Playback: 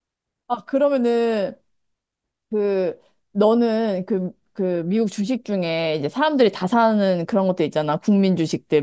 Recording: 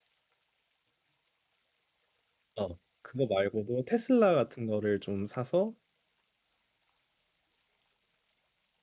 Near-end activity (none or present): present